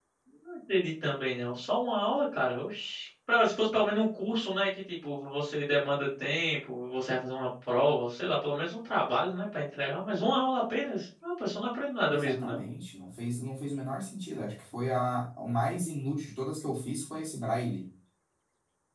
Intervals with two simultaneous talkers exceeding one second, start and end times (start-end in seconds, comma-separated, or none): none